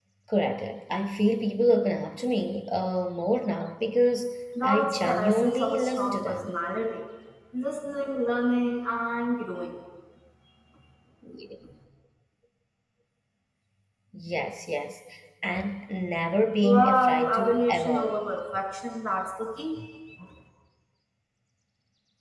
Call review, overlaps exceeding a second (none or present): present